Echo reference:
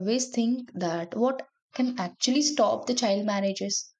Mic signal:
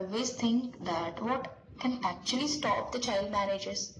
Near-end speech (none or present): none